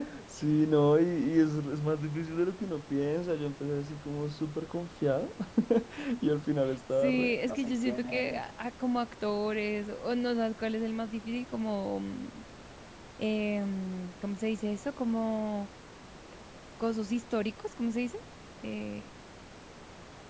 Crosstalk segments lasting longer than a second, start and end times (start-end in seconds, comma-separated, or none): 7.0-8.4